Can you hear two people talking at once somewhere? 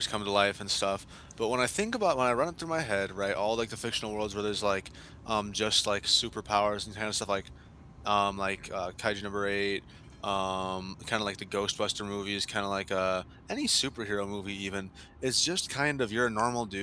No

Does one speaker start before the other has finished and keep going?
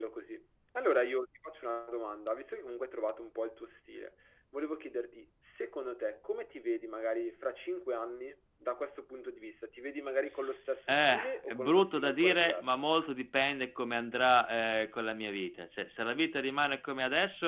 Yes, from 10.9 s

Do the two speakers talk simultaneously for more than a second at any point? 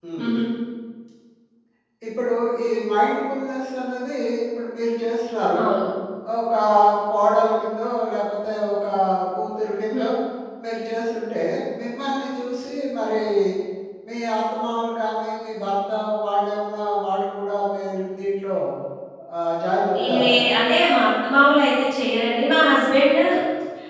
No

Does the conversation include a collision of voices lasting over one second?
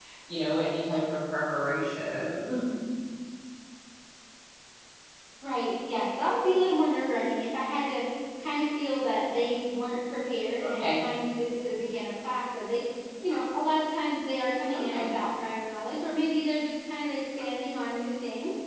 No

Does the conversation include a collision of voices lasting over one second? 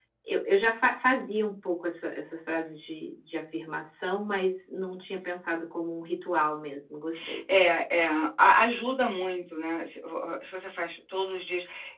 No

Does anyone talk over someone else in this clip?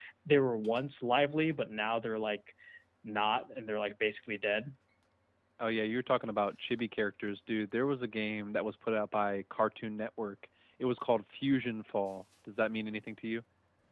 No

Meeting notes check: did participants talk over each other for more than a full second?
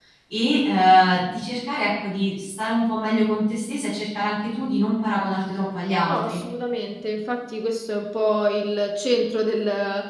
No

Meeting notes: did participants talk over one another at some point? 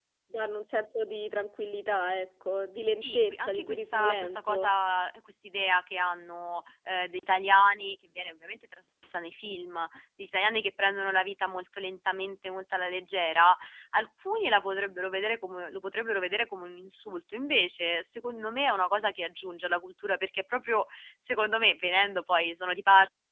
Yes, from 3.0 s

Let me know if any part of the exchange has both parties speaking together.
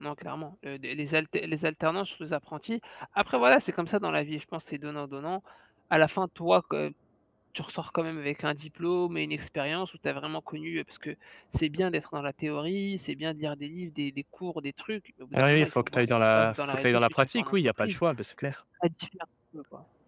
Yes, from 15.3 s

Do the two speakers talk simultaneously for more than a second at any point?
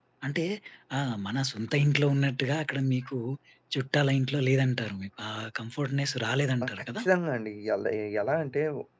No

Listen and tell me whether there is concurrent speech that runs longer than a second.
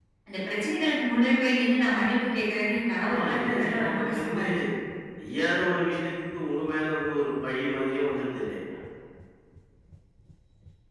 Yes, from 3.0 s

